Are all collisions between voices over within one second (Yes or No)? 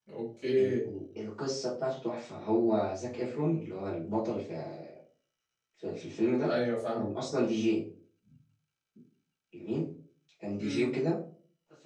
Yes